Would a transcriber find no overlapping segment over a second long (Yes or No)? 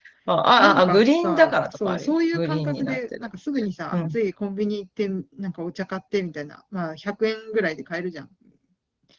No